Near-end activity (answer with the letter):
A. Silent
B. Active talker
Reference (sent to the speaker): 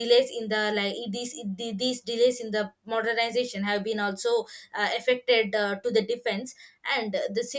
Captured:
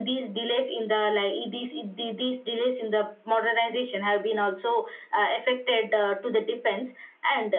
A